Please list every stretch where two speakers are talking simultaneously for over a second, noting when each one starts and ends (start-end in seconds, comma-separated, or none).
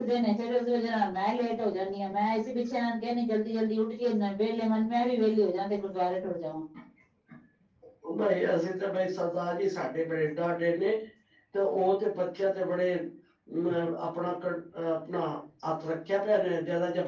none